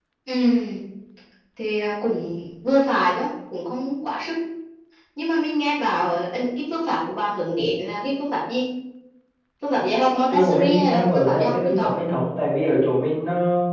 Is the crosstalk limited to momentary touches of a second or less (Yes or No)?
No